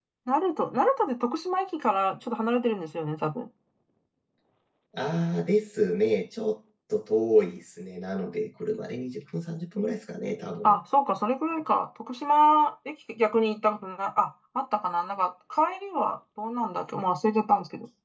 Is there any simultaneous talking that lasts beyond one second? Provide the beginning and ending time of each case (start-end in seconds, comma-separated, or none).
none